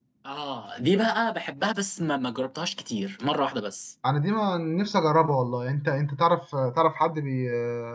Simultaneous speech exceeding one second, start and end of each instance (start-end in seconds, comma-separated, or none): none